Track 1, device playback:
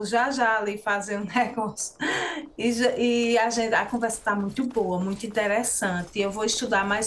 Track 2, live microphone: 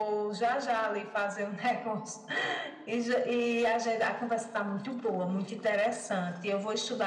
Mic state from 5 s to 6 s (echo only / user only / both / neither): echo only